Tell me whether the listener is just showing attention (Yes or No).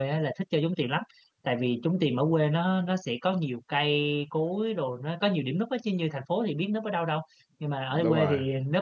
Yes